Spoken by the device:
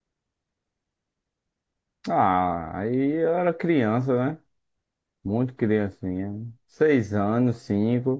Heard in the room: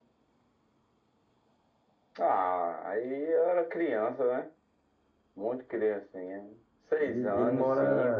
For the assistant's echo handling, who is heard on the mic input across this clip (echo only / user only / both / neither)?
both